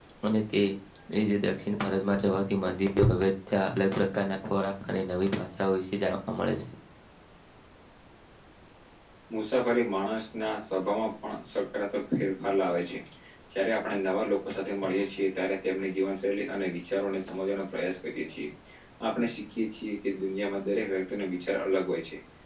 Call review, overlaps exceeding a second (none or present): none